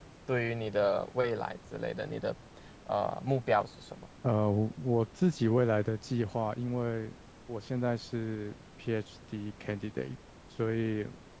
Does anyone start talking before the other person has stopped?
No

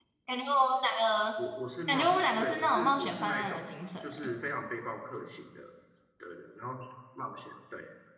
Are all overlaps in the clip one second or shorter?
No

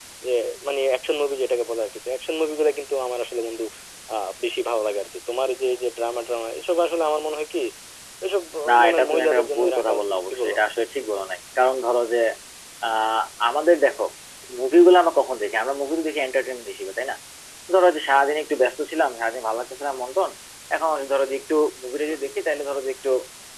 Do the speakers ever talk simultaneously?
Yes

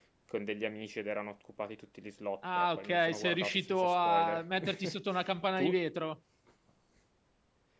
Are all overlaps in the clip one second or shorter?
No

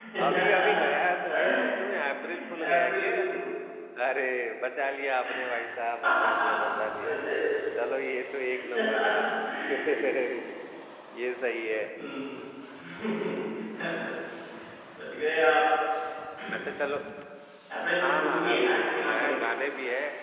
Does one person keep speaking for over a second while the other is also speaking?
Yes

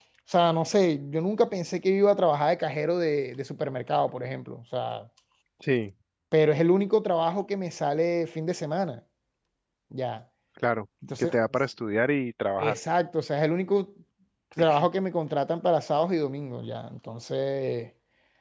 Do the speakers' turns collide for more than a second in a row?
No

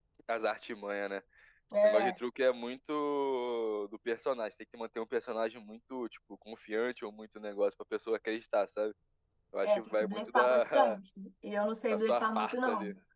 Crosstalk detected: Yes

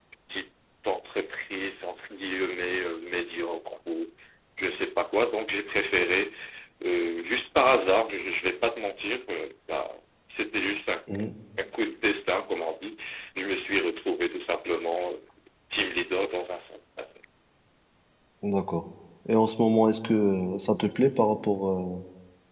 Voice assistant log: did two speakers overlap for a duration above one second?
No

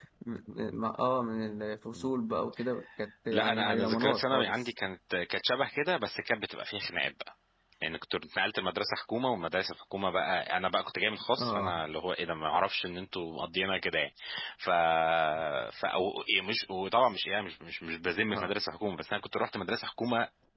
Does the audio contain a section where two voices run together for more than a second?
Yes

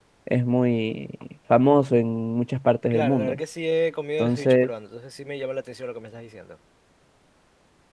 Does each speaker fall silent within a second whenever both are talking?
Yes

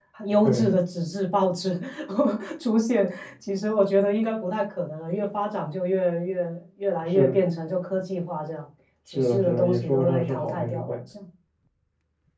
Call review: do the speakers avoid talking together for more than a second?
No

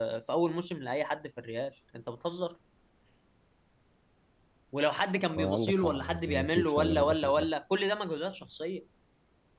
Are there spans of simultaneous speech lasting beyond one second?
Yes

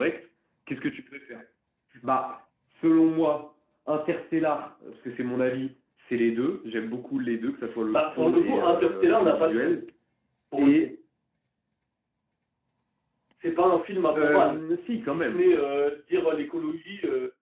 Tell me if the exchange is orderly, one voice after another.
No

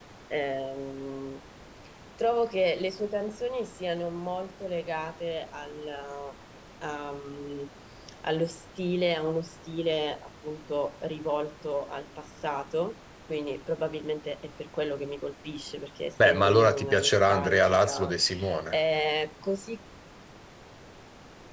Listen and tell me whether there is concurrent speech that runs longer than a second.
Yes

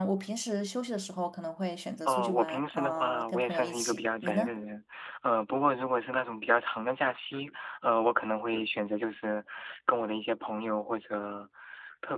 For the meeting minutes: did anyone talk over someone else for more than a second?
Yes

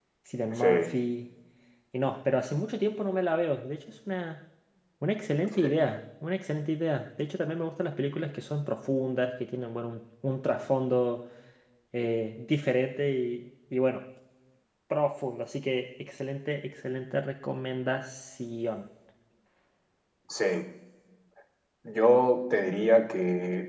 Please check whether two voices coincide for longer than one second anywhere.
No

